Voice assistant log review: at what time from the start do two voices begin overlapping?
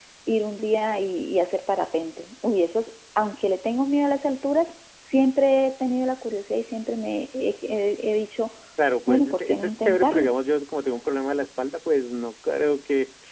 9.1 s

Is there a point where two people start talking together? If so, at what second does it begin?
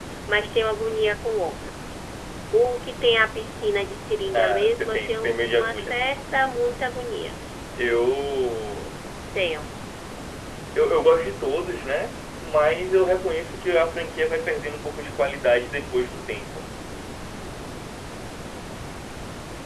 4.3 s

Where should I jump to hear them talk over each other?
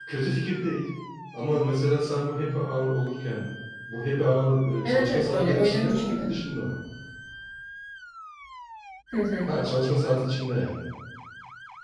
4.8 s

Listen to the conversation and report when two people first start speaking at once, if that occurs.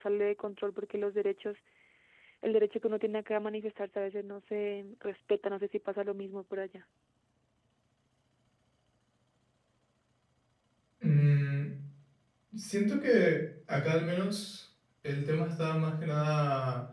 none

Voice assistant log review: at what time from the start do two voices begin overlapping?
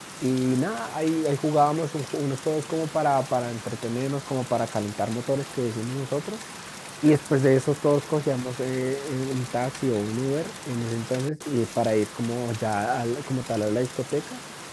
none

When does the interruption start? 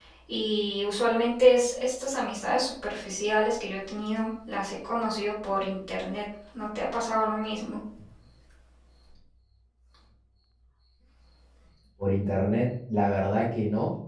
none

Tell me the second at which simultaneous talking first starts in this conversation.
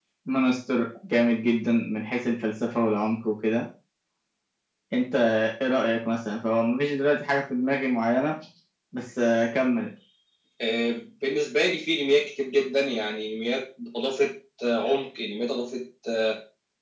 none

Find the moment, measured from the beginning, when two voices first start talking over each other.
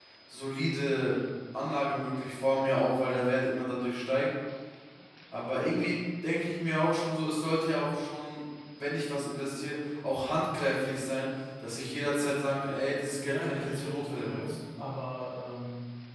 13.2 s

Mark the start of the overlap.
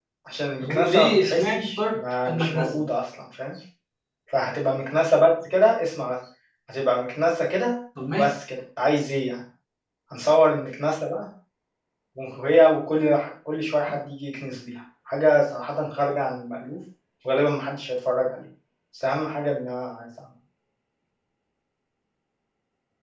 0.6 s

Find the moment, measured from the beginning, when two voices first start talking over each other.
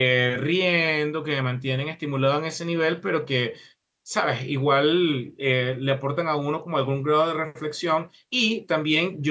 none

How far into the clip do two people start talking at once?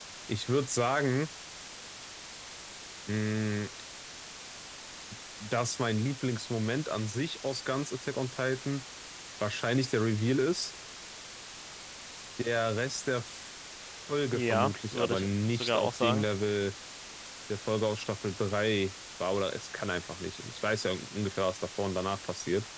14.3 s

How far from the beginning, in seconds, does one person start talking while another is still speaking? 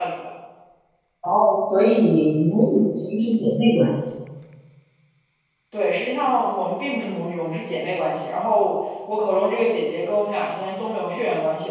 none

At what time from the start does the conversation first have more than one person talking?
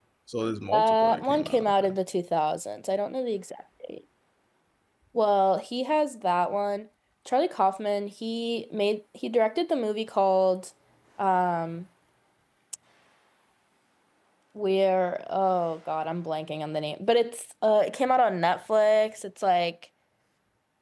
0.7 s

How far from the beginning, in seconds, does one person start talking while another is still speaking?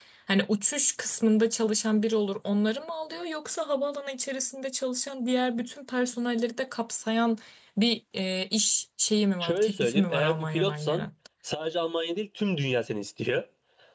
9.4 s

